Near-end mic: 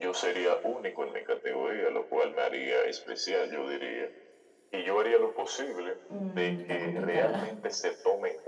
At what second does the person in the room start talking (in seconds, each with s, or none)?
6.1 s